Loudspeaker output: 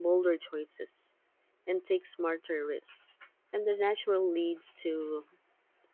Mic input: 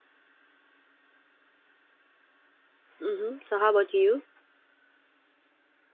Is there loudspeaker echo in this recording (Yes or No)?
No